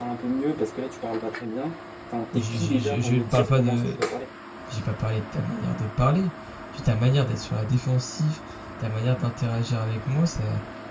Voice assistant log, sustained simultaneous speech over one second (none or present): present